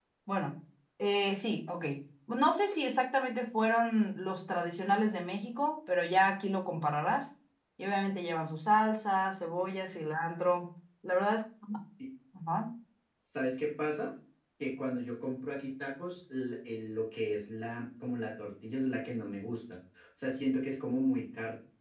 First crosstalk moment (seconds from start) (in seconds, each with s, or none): none